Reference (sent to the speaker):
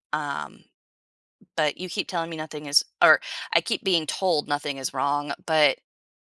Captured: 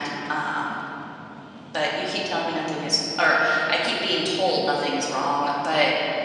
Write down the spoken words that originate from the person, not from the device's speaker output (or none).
none